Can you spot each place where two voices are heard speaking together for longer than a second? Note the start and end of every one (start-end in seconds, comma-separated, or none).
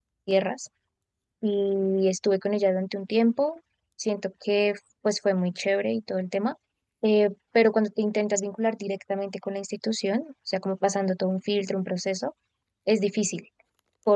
none